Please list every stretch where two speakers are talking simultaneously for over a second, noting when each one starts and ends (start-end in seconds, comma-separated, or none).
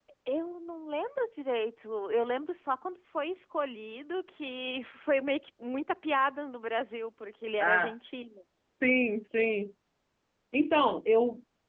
none